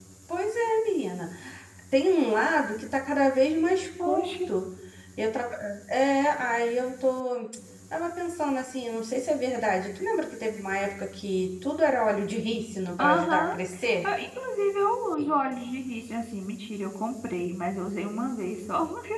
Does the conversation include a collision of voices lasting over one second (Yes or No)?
No